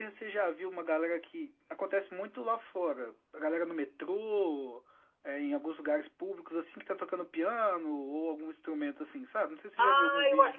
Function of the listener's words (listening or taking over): taking over